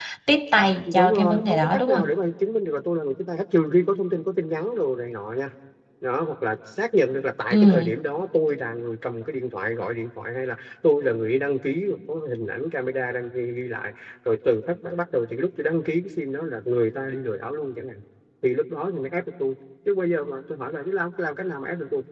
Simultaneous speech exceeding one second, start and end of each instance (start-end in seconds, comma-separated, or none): 0.9-2.1